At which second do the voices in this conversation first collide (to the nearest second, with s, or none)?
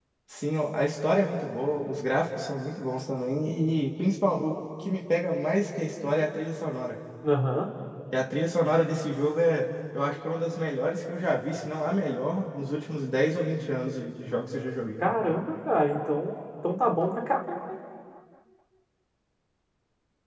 none